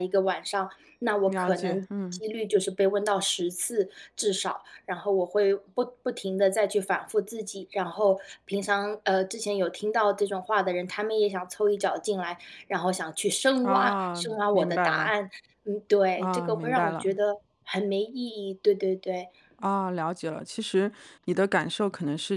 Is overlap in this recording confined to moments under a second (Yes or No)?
No